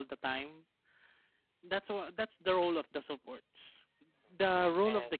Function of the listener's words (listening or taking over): listening